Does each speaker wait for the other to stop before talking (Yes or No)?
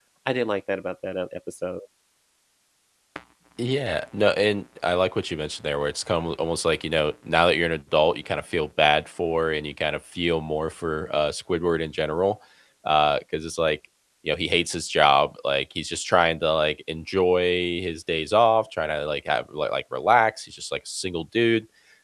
Yes